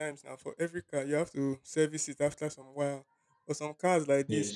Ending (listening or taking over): listening